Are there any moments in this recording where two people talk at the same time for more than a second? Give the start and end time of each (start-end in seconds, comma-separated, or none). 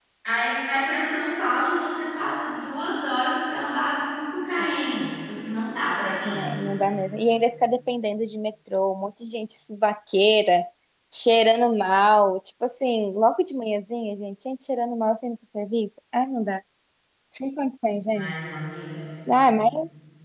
none